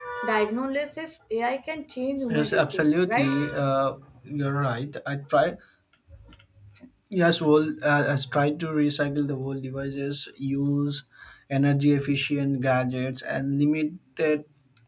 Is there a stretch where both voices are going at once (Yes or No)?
Yes